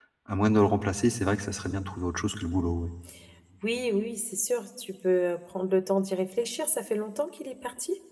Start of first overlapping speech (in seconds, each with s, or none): none